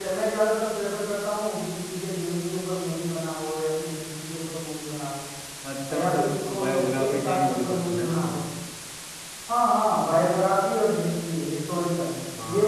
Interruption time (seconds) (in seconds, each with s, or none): 6.0 s